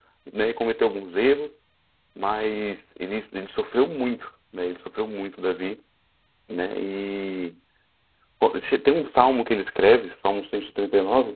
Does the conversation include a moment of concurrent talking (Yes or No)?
No